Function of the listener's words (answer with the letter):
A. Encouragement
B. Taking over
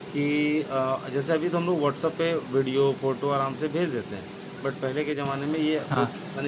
A